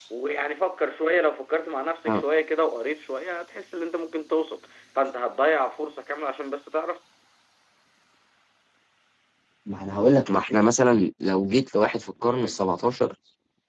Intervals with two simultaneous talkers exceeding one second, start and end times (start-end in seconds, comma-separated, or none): none